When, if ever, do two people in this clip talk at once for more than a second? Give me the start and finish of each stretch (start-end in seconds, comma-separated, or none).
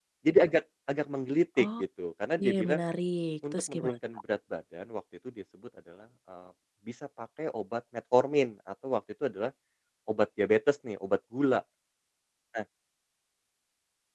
none